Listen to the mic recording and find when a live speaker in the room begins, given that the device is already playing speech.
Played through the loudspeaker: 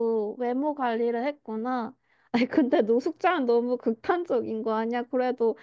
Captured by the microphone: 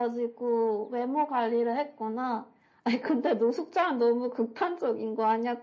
none

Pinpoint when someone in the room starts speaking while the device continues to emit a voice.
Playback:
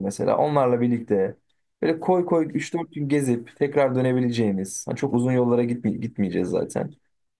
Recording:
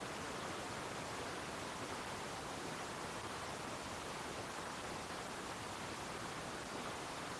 none

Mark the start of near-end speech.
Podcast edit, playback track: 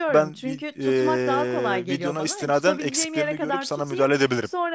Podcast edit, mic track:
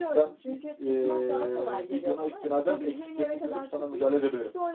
none

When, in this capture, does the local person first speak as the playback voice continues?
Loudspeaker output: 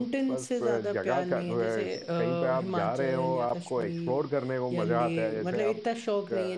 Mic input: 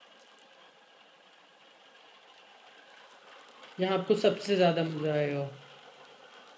4 s

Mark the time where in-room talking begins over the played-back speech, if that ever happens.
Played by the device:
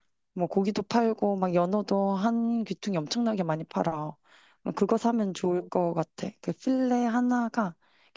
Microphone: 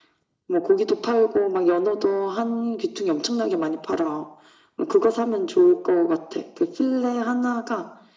none

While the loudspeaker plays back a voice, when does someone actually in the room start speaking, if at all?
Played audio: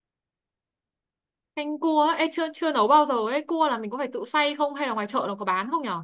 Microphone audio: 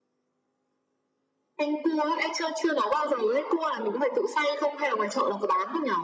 none

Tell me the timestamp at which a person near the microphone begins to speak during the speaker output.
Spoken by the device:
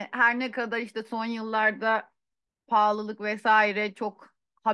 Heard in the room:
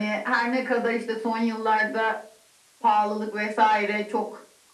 none

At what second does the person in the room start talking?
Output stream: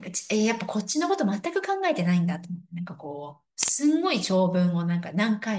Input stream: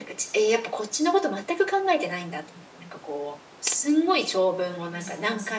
5 s

